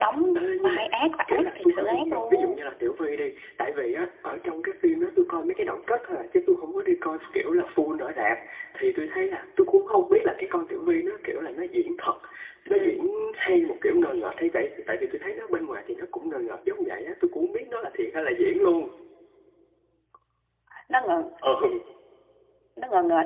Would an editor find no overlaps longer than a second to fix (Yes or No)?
No